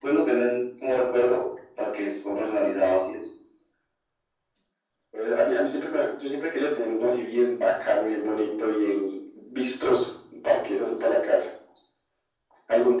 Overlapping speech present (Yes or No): No